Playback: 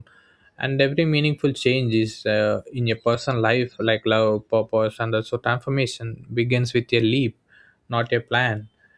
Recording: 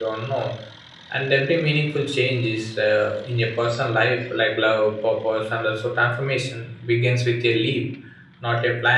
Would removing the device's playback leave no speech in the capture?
Yes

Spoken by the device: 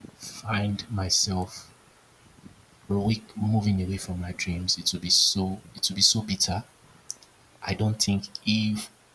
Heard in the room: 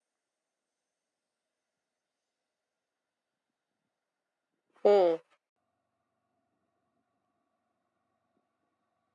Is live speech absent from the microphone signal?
No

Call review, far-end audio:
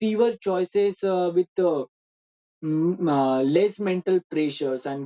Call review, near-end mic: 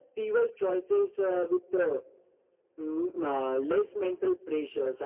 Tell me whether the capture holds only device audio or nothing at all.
Yes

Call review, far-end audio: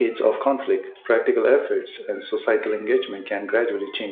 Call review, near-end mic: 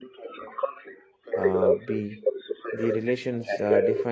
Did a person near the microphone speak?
Yes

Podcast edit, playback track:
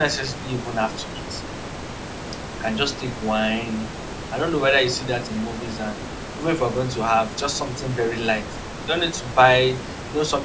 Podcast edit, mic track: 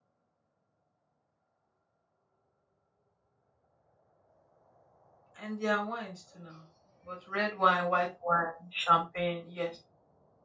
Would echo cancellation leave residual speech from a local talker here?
Yes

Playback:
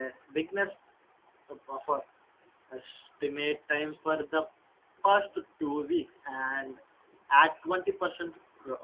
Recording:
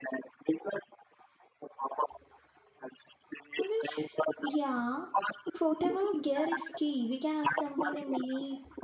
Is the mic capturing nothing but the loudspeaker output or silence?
No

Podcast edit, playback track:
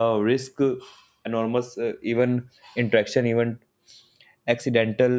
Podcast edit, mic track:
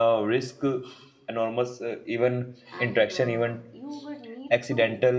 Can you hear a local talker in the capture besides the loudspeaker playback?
Yes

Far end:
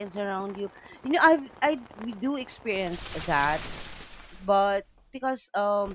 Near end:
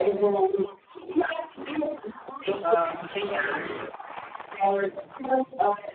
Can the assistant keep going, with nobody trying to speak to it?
No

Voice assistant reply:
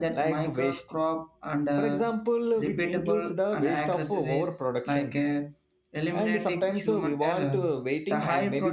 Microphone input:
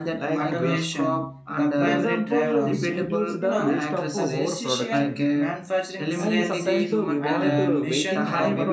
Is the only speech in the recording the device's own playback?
No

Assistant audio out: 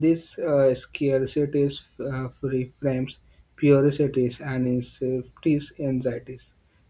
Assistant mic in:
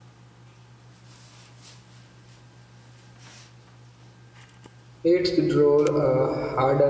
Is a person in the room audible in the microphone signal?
Yes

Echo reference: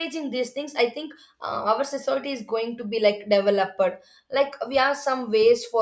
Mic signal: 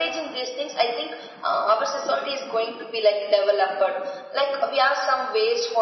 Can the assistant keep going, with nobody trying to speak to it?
Yes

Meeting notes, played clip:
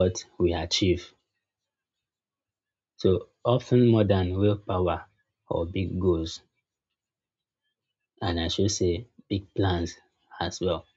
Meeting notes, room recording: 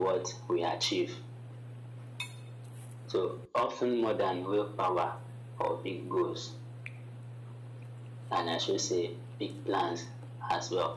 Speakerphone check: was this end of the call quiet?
Yes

